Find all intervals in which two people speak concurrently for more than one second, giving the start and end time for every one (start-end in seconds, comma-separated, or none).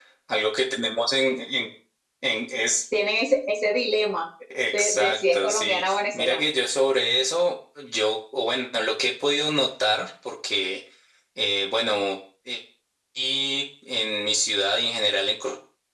4.7-6.5